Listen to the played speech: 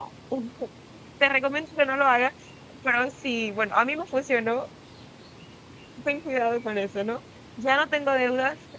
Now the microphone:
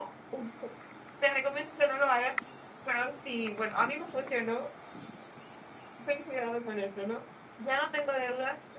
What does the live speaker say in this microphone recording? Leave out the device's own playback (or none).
none